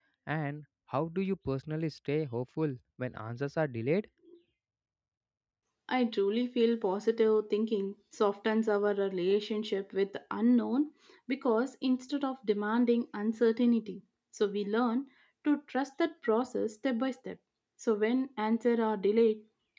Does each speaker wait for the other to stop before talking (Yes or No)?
Yes